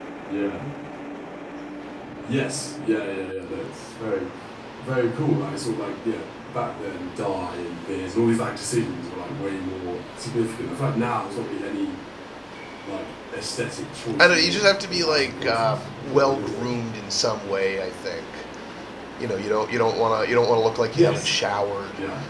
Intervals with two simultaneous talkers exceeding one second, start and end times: 14.2-16.7

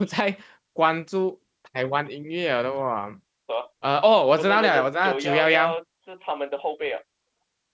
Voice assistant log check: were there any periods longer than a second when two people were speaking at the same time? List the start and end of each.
4.4-5.8

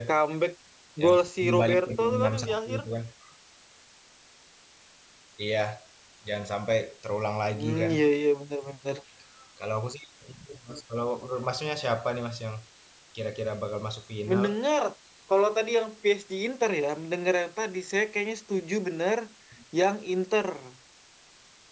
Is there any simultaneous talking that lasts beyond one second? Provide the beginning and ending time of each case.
1.0-2.8

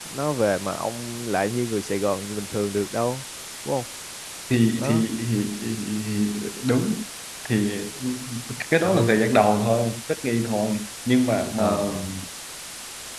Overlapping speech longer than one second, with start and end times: none

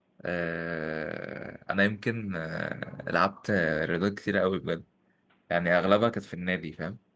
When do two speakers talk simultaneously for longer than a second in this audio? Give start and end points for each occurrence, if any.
none

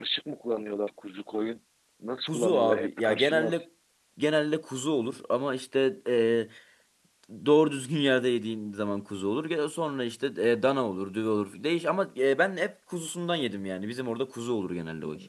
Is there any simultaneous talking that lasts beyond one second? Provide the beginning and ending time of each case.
2.3-3.6

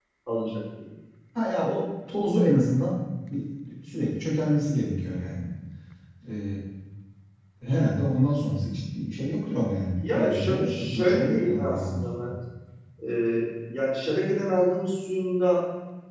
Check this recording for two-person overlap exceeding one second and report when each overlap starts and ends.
9.9-12.3

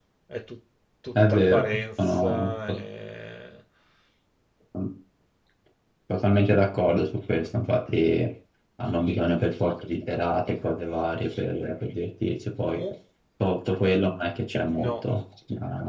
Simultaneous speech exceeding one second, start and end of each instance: 1.3-2.5

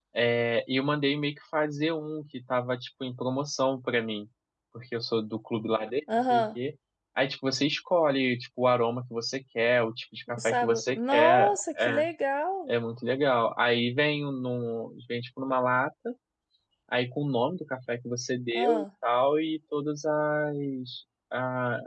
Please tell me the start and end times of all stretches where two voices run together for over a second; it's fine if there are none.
10.4-12.0

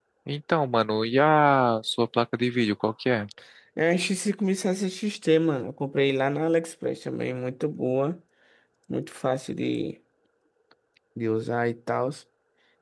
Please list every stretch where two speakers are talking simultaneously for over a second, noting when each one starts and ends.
none

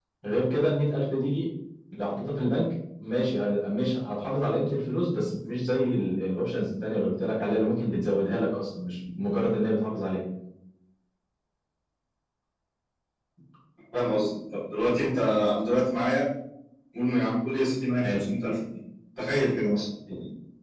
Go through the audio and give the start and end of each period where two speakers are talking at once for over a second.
none

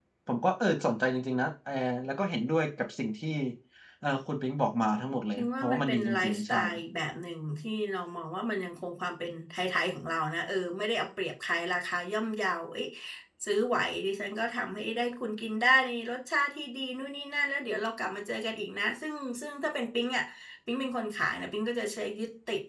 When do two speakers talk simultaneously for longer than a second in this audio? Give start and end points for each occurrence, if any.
5.4-6.6

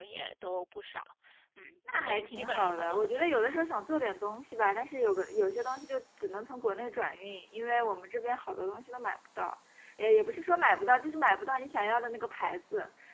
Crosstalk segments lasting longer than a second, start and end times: 1.9-3.6

